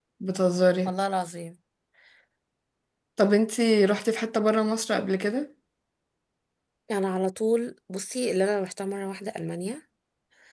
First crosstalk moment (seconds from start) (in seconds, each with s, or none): none